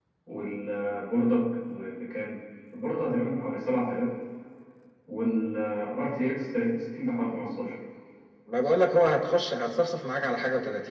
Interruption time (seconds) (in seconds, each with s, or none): none